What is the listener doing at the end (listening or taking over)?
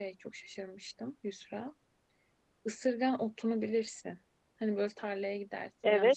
taking over